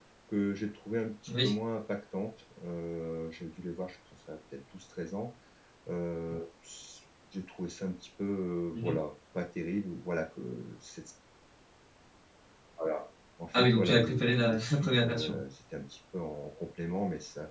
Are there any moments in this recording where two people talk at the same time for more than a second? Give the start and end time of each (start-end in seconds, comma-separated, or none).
13.5-15.4